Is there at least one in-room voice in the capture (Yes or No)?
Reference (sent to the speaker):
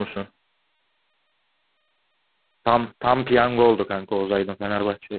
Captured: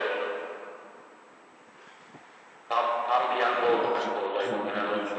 Yes